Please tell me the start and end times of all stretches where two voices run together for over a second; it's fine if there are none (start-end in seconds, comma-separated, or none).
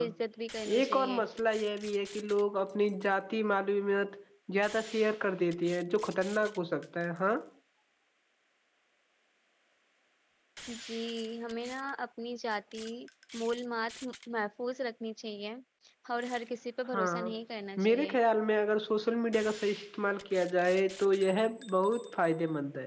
none